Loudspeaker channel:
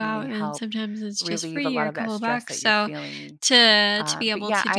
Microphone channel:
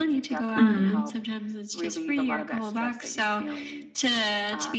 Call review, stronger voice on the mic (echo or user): user